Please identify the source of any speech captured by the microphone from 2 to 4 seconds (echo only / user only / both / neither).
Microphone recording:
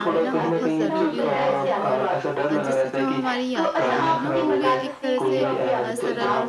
both